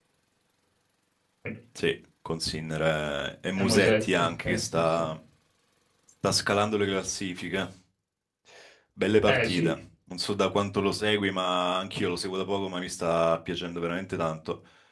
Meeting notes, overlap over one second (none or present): present